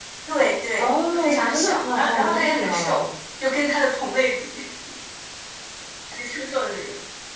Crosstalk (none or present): present